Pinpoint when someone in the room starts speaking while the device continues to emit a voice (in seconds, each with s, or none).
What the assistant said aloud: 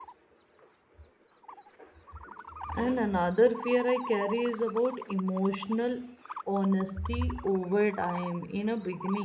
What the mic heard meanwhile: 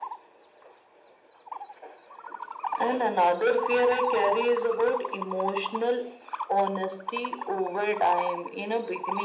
none